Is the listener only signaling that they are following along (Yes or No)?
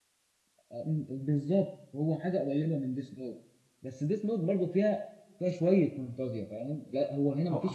Yes